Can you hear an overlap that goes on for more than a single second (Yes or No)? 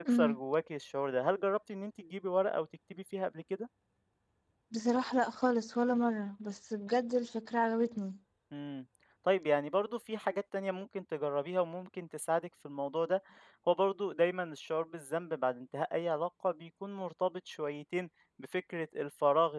No